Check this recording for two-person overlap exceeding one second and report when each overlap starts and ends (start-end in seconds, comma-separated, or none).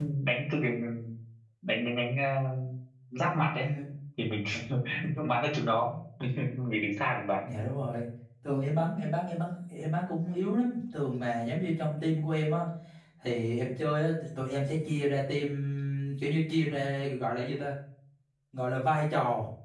none